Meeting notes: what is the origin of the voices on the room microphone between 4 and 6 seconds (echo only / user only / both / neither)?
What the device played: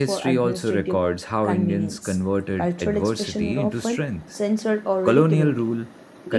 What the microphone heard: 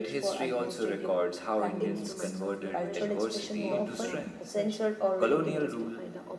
both